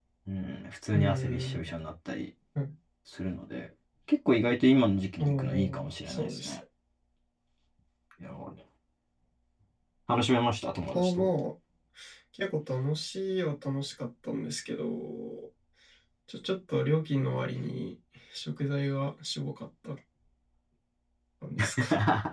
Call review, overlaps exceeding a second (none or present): present